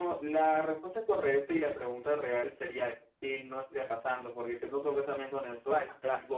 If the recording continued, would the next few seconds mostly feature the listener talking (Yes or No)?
No